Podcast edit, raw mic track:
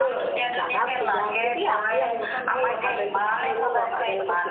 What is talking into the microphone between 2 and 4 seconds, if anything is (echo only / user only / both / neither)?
both